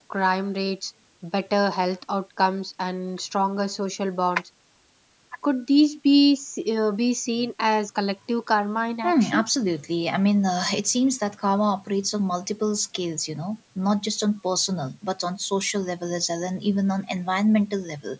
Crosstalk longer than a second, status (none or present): none